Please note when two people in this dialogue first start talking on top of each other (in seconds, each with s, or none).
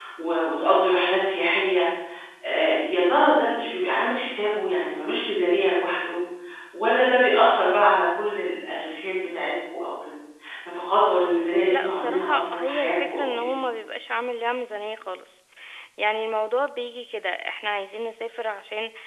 11.7 s